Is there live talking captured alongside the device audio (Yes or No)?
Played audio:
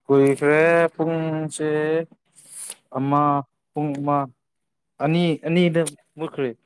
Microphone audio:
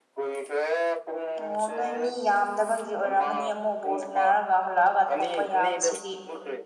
Yes